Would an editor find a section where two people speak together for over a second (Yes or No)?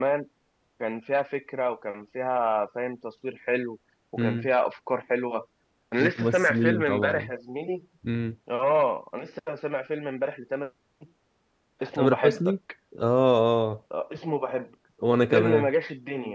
Yes